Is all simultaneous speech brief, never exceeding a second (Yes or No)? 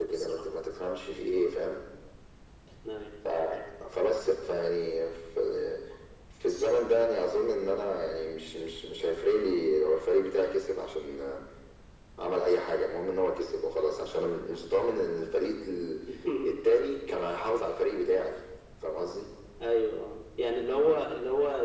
Yes